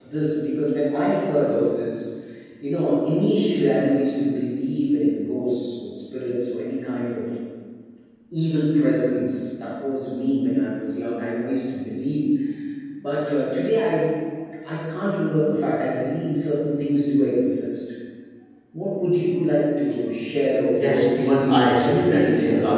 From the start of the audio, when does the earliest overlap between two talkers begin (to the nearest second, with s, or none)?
21 s